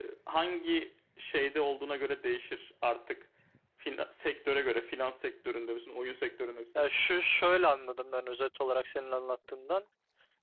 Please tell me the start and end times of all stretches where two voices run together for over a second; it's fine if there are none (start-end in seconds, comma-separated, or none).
none